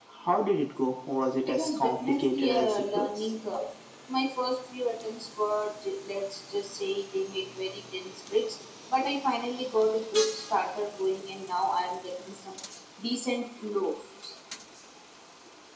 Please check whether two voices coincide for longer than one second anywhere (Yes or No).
Yes